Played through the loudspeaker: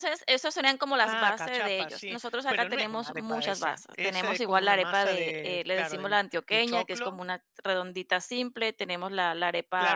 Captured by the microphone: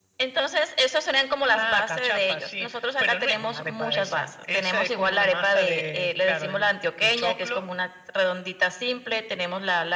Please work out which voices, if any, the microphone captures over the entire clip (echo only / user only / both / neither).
echo only